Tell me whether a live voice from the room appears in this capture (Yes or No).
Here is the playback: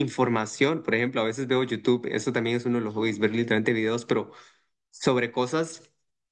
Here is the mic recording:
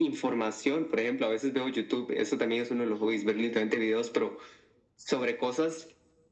No